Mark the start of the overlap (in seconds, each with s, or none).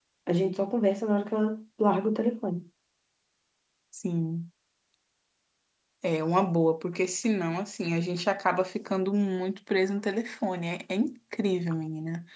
none